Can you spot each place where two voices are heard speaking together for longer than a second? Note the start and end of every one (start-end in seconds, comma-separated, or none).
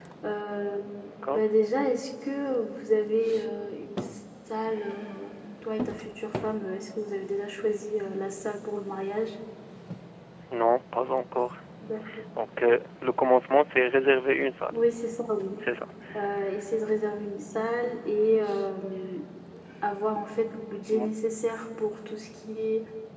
none